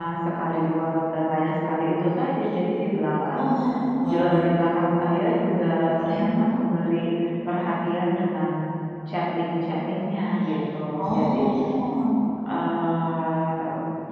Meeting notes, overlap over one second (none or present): none